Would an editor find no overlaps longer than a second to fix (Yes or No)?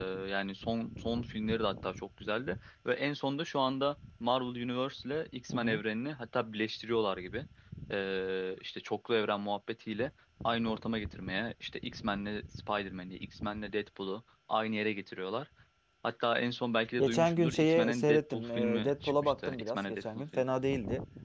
No